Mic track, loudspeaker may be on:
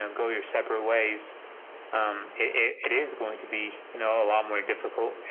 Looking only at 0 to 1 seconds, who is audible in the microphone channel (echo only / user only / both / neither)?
echo only